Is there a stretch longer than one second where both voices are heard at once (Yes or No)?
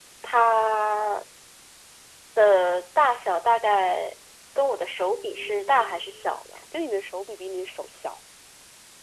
Yes